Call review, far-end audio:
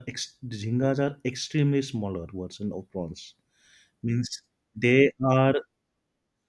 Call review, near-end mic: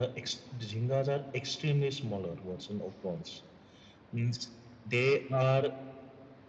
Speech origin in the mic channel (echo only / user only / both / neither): echo only